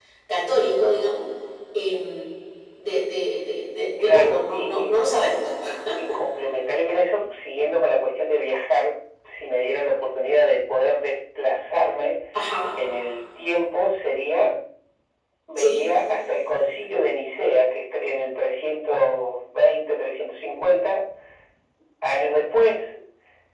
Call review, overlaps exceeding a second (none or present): present